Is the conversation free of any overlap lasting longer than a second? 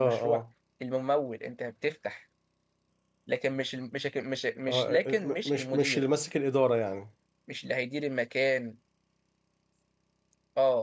No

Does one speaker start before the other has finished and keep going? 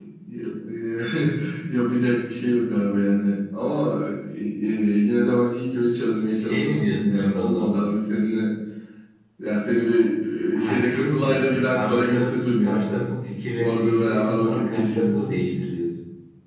Yes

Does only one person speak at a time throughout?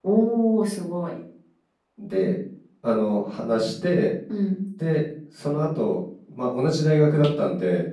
Yes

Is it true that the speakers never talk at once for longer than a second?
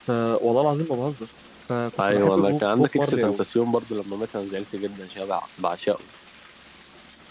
No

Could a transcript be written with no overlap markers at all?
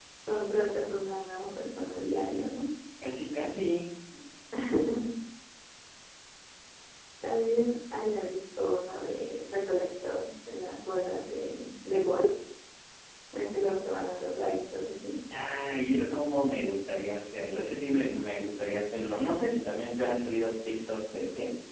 Yes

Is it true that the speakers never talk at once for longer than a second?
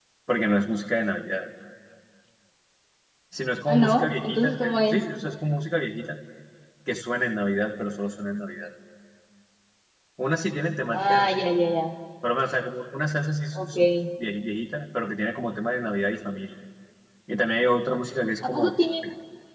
No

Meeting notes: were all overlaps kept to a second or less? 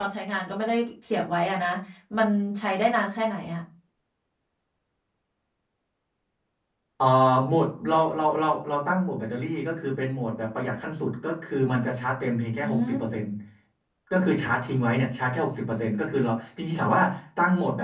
Yes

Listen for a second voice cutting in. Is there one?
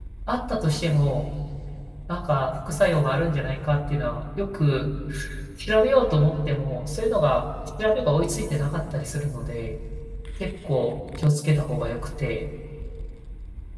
No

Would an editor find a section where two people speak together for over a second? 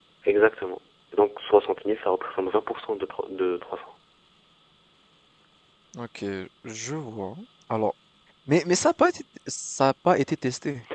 No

